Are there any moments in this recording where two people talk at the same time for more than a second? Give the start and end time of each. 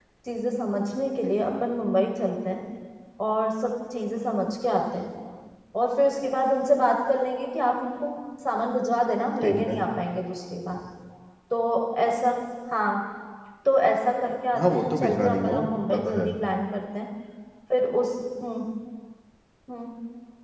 14.6-16.3

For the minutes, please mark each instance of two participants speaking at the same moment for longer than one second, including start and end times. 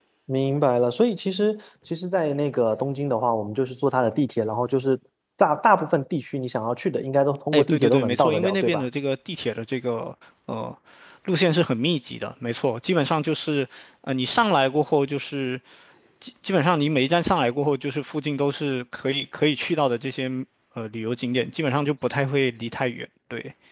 7.5-8.8

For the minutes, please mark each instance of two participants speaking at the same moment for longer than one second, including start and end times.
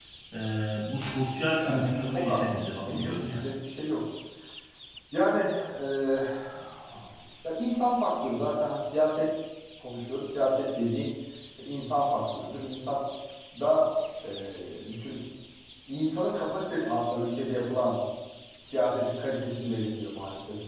1.6-3.4

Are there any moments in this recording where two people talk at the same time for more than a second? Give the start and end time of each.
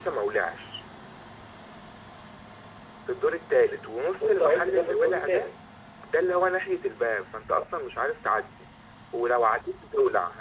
4.2-5.5

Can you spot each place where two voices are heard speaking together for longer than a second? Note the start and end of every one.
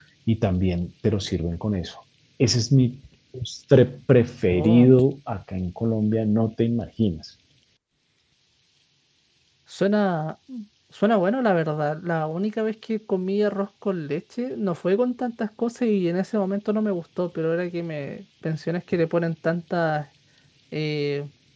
none

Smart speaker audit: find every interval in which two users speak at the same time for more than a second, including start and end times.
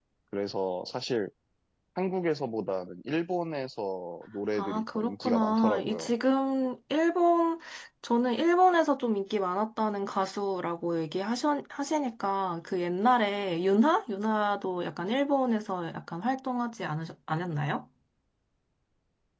4.6-6.1

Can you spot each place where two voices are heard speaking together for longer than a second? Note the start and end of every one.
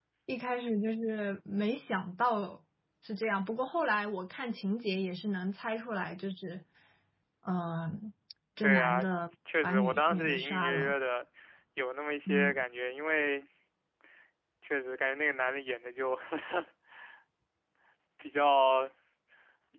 9.6-10.9

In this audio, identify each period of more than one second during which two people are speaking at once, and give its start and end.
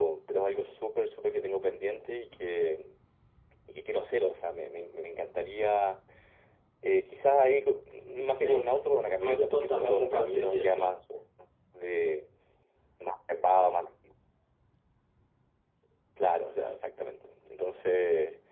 8.4-11.0

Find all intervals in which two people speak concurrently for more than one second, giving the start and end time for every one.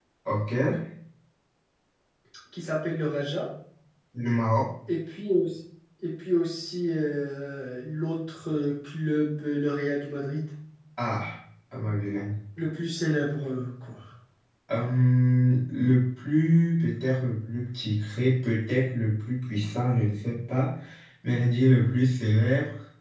none

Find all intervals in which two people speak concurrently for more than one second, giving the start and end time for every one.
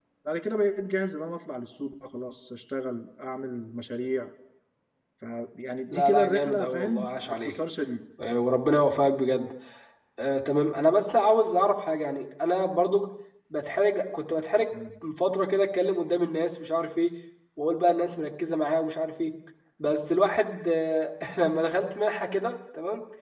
5.9-7.6

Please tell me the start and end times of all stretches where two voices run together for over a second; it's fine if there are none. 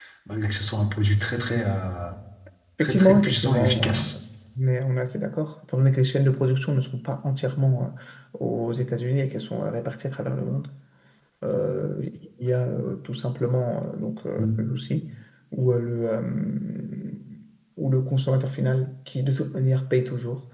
2.8-4.1

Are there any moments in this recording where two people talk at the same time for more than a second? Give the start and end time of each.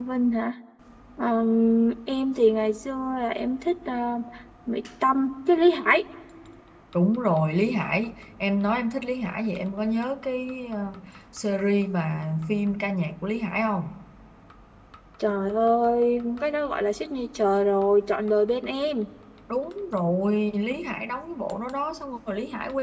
none

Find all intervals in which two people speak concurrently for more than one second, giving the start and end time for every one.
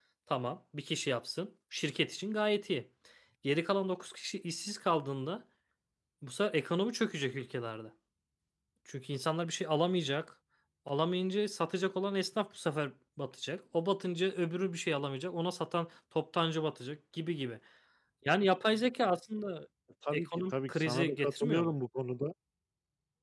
20.1-21.8

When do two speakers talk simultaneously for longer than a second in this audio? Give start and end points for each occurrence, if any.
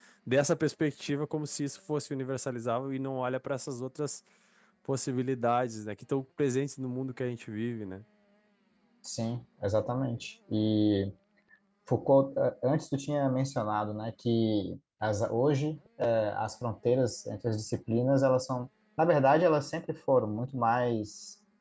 none

